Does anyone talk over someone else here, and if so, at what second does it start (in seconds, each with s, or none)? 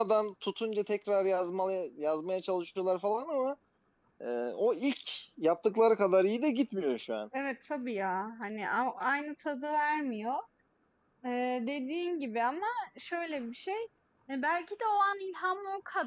none